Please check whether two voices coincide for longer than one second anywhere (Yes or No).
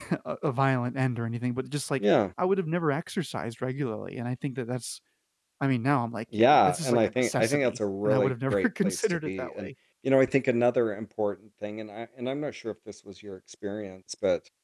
Yes